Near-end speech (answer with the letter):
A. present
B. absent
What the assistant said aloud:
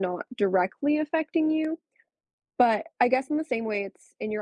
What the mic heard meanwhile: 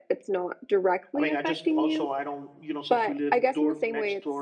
A